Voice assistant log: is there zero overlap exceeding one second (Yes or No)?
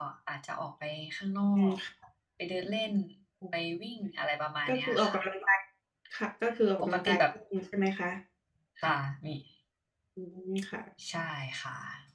Yes